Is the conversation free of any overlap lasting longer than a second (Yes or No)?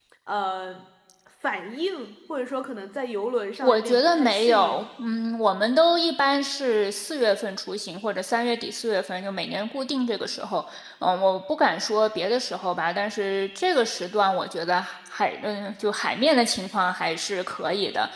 No